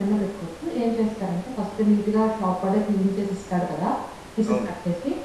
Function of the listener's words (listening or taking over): listening